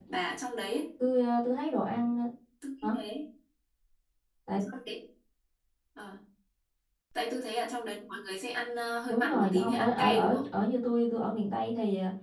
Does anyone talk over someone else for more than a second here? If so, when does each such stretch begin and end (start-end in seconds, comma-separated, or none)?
9.1-10.4